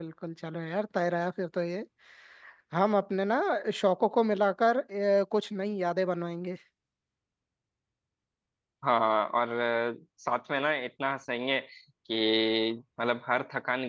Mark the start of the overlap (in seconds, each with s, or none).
none